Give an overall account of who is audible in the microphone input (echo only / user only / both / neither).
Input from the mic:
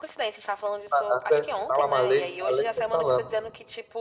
both